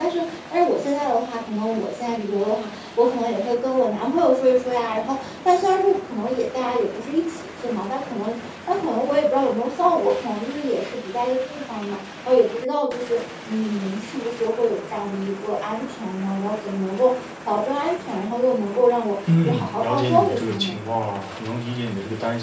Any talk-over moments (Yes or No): Yes